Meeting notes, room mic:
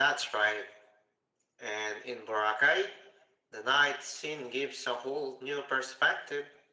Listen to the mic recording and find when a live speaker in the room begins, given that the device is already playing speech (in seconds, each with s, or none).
none